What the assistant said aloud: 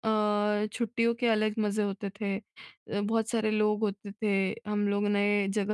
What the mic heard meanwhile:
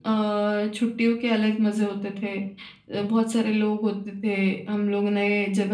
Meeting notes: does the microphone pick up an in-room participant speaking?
No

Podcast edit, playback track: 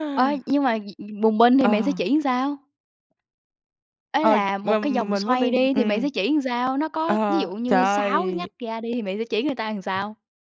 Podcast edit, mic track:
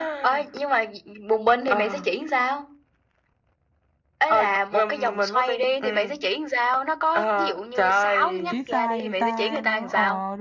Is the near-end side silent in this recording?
No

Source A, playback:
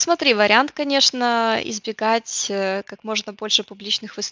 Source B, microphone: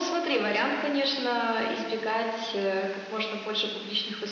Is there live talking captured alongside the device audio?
No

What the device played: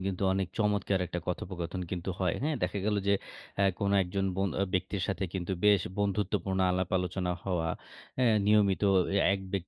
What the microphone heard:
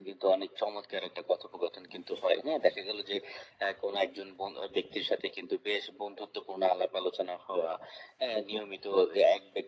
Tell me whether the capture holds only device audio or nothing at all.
Yes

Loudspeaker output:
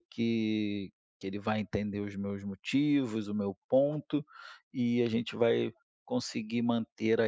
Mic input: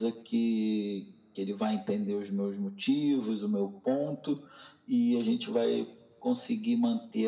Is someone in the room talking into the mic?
No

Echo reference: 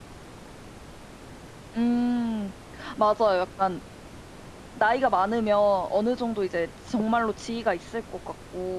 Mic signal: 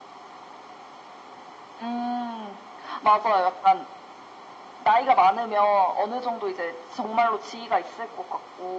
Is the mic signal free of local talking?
Yes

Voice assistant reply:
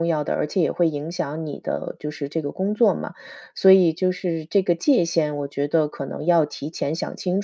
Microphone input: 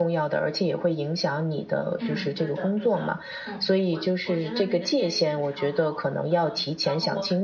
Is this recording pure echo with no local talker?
No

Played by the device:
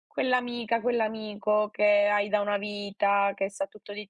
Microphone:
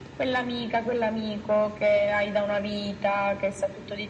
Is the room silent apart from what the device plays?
Yes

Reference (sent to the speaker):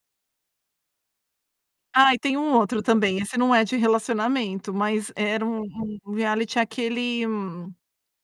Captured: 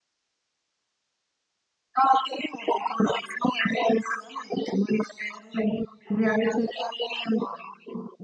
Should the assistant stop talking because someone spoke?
No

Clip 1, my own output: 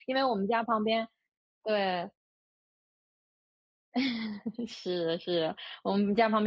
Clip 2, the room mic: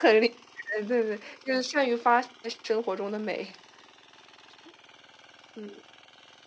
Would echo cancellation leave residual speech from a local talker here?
Yes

